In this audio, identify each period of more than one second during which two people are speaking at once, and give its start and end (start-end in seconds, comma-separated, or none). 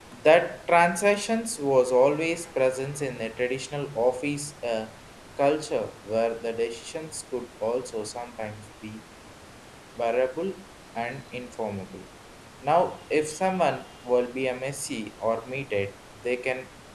none